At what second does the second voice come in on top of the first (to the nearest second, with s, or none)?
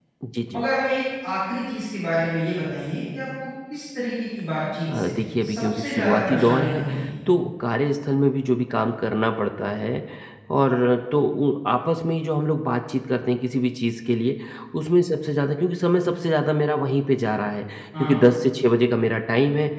5 s